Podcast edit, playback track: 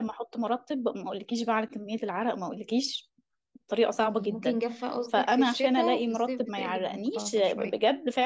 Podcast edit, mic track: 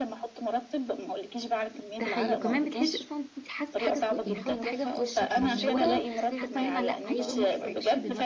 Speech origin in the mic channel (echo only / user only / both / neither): both